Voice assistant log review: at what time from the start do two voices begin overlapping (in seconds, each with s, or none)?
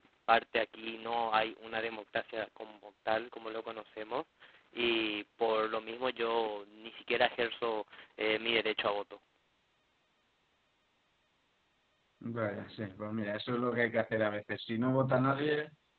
none